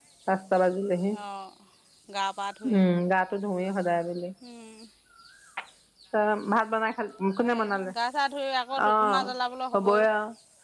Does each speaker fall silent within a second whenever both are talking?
Yes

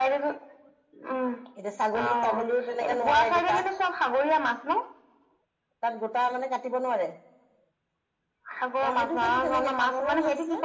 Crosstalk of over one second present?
Yes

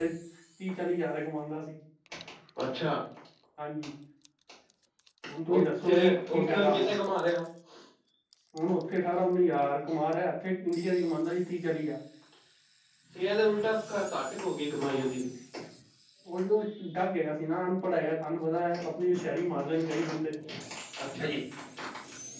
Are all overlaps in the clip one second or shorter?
No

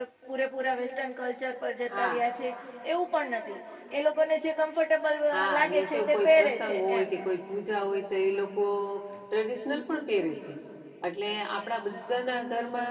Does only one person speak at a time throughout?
No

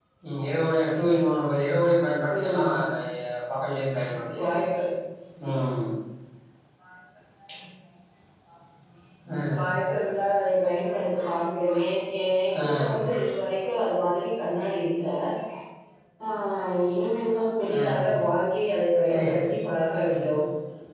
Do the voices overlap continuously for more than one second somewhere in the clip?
No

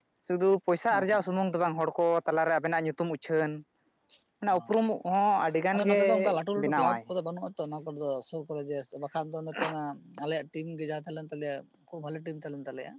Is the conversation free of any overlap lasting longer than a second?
No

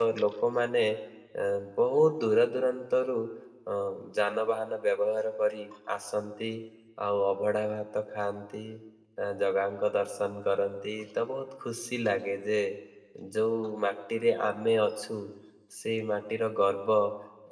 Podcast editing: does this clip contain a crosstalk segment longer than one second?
No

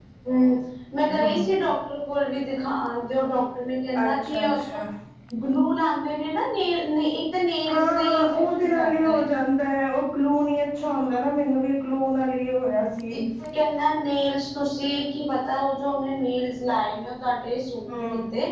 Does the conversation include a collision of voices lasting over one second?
Yes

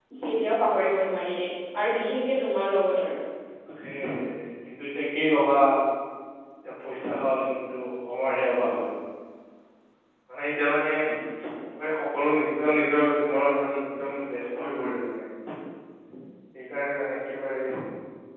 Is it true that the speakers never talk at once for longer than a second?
Yes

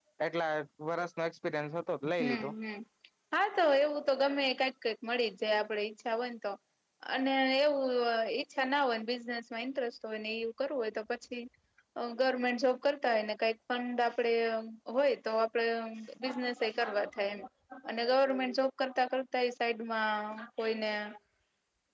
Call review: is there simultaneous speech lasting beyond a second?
No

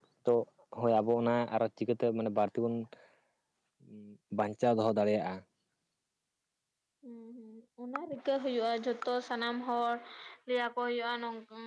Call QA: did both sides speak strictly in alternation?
Yes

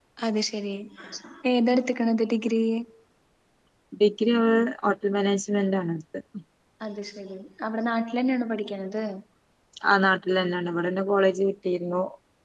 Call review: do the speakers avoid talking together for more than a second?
Yes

